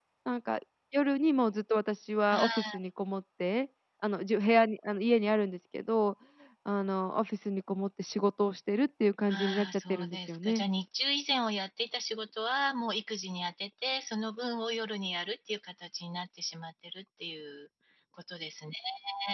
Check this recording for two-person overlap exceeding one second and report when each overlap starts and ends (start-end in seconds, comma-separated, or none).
9.3-10.6